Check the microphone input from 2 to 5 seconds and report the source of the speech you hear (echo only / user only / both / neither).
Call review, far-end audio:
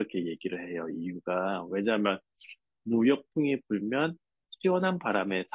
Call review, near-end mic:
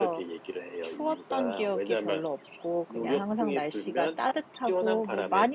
both